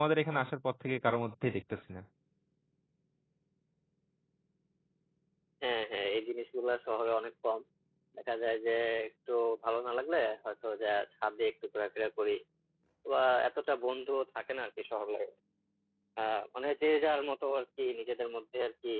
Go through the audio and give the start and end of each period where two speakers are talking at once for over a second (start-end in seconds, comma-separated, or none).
none